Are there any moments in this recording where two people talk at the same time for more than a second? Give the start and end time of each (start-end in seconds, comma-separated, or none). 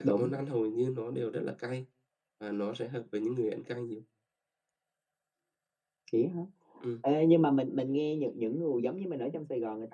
none